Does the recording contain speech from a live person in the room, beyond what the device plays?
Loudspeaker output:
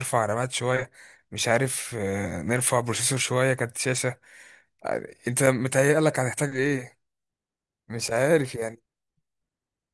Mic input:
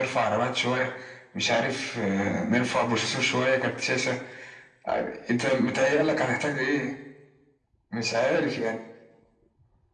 No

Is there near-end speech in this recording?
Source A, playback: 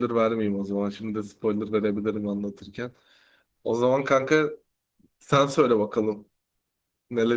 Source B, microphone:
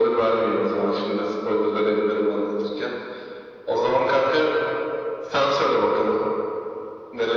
No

